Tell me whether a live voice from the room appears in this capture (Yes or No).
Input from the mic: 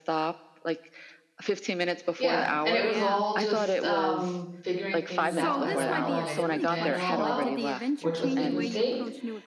Yes